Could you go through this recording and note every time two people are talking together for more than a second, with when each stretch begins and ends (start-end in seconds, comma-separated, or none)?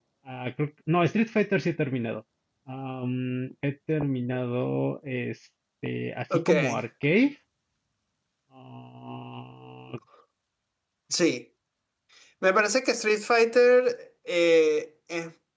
none